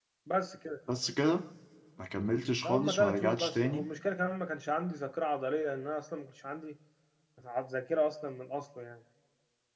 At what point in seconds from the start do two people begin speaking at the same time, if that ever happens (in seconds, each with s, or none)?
2.6 s